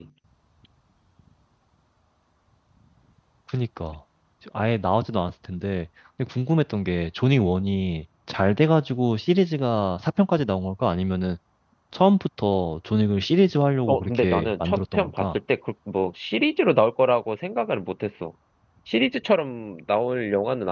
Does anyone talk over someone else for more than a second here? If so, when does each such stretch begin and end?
13.9-15.2

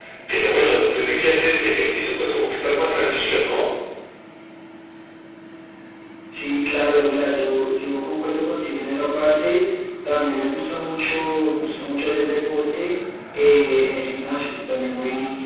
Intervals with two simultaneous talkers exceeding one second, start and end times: none

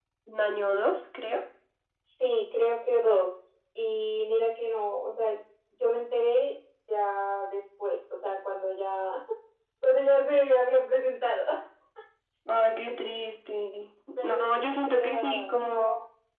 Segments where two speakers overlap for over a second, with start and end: 14.2-15.5

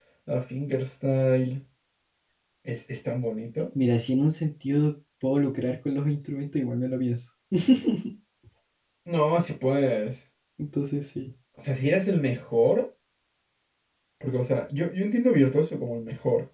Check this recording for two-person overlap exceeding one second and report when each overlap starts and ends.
none

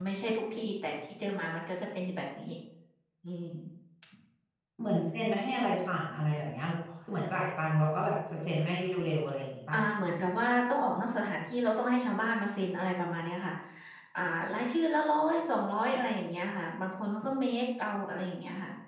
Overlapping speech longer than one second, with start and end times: none

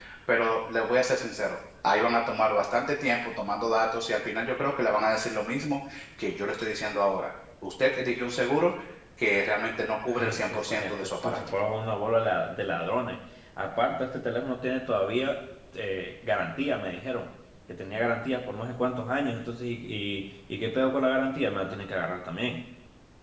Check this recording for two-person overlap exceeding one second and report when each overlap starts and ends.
10.2-11.4

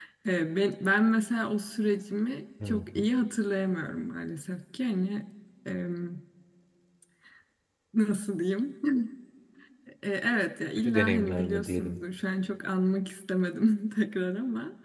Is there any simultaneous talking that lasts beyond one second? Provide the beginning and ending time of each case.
10.8-12.0

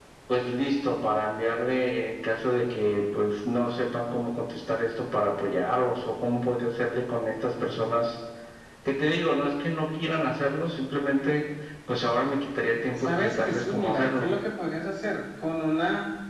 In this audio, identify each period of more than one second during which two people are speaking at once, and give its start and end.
13.0-14.3

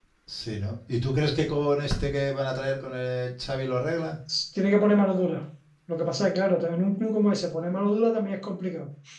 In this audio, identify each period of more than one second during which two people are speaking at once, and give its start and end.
none

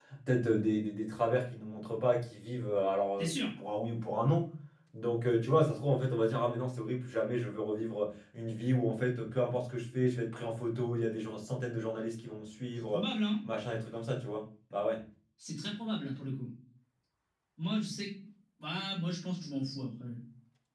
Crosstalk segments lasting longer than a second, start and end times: none

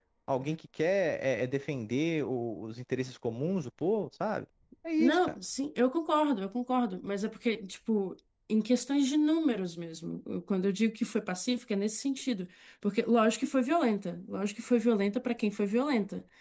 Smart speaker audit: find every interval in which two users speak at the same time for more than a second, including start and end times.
none

